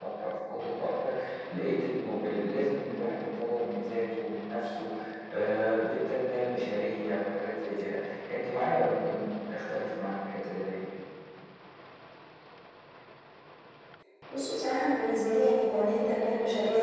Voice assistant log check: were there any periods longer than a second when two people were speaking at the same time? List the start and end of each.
none

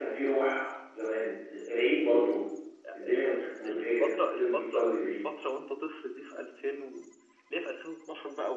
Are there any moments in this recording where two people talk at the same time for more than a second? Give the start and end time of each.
3.0-5.1

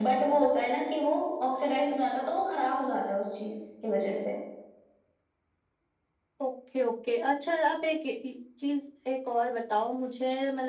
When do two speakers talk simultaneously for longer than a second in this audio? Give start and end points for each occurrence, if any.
none

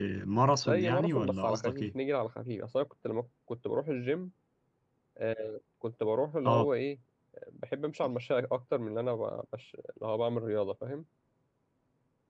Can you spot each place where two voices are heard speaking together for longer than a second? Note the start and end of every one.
0.7-1.9

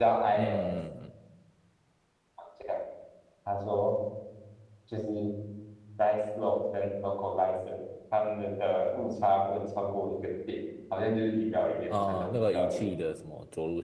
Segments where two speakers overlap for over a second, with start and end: 11.9-13.1

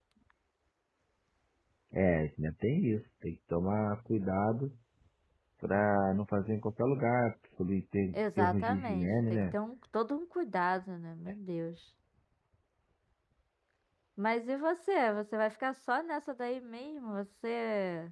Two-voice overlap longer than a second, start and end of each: 8.1-9.6

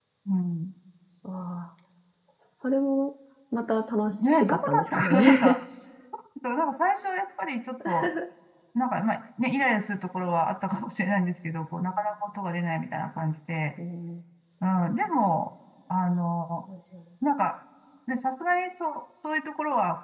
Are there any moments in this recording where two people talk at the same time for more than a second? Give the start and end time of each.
4.1-5.6

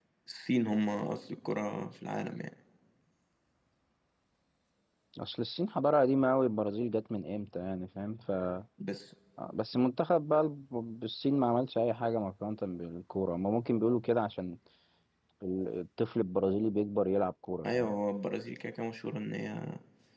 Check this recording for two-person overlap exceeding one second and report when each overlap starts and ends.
none

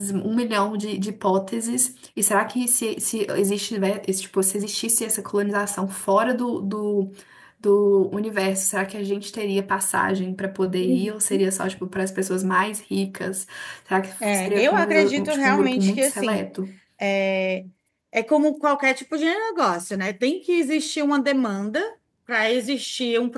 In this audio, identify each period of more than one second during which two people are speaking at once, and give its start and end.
14.2-16.5

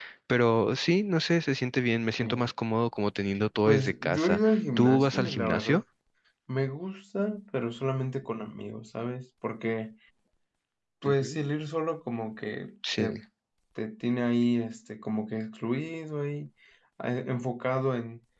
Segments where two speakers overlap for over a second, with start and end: 3.6-5.8

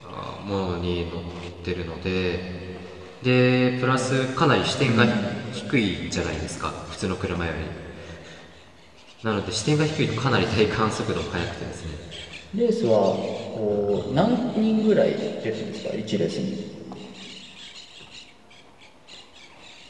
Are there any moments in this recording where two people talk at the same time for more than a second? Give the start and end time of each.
9.7-10.9

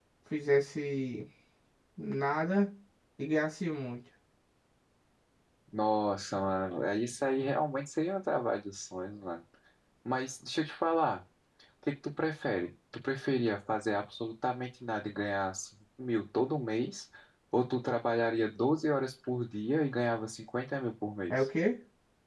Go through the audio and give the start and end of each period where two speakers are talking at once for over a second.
none

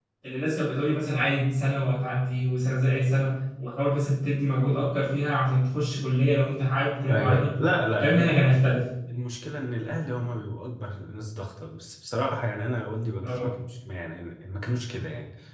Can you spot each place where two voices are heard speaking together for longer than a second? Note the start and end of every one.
none

